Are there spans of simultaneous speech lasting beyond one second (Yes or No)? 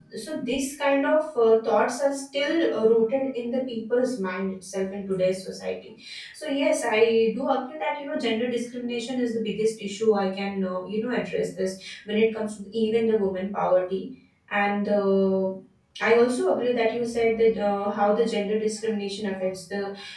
No